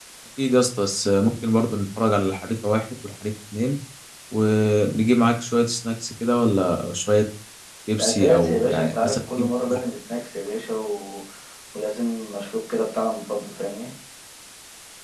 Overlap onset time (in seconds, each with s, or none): 8.0 s